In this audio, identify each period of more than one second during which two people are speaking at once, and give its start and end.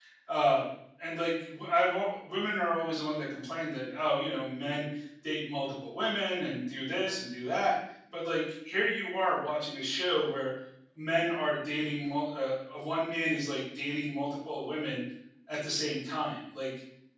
none

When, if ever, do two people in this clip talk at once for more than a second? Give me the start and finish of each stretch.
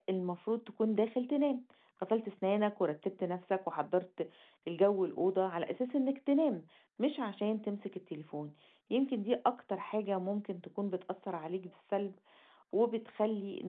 none

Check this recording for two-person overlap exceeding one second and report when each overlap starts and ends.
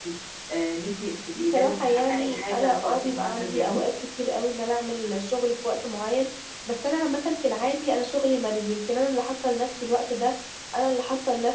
1.4-3.8

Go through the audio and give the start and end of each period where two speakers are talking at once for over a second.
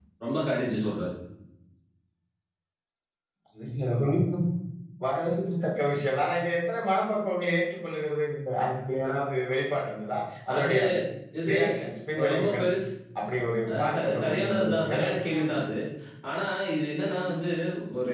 13.8-15.6

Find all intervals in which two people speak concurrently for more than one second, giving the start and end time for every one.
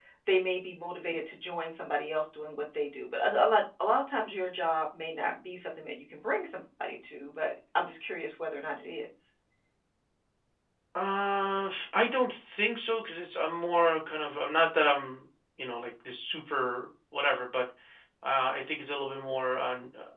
none

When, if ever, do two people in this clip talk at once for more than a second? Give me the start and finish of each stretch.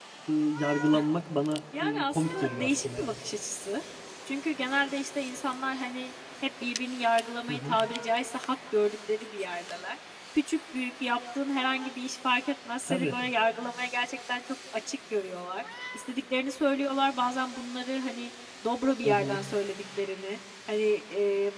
1.8-3.2

